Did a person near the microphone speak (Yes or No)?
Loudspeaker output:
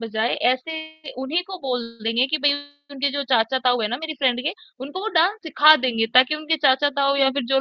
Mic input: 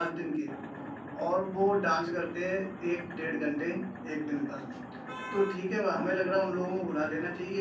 Yes